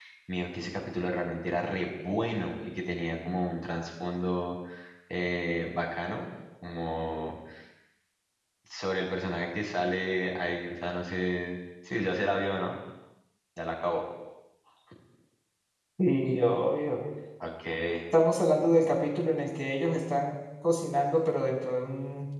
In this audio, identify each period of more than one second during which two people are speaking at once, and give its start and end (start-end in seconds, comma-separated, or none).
none